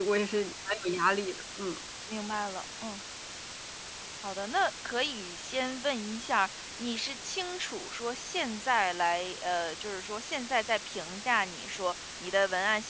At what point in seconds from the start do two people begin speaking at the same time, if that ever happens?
none

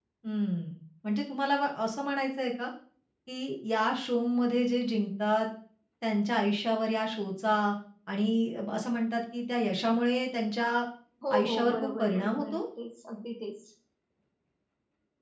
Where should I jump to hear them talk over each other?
11.3 s

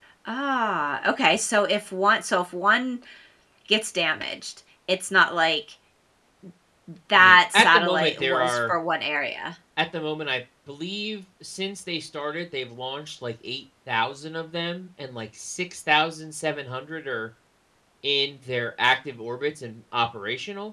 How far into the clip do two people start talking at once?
7.2 s

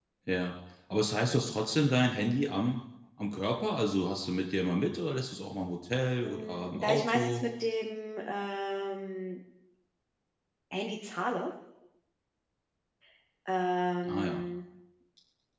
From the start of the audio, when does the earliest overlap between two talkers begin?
6.2 s

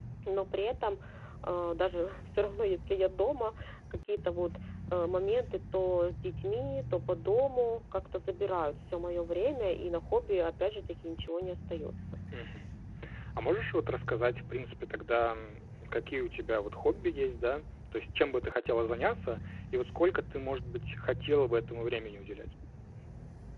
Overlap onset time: none

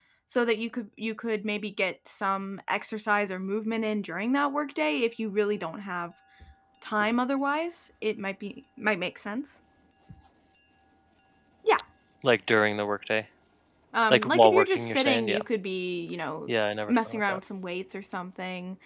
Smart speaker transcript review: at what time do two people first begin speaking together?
14.1 s

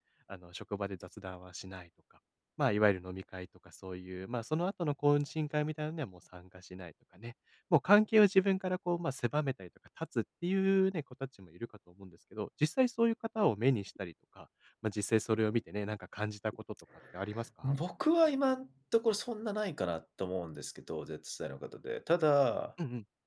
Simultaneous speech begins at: none

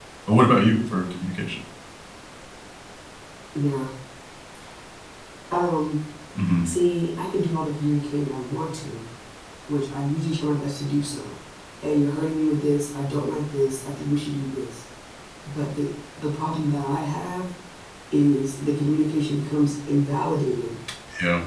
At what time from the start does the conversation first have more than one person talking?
none

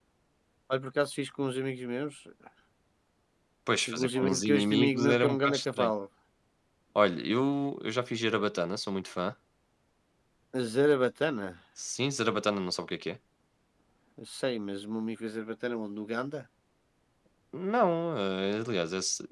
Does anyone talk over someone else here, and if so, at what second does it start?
3.9 s

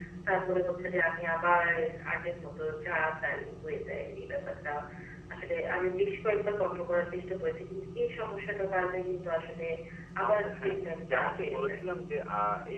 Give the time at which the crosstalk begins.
10.3 s

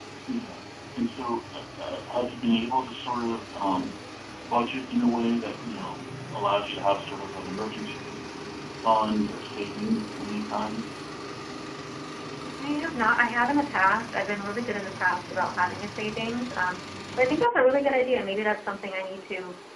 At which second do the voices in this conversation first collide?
none

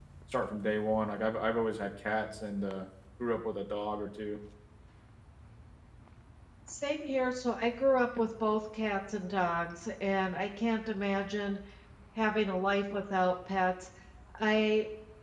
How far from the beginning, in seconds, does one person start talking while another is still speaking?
none

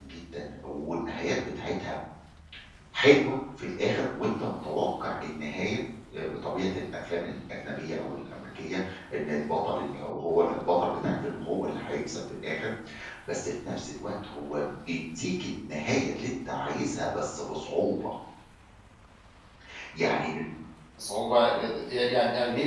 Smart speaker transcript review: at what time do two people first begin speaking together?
none

